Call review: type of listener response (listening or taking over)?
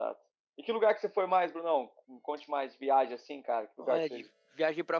taking over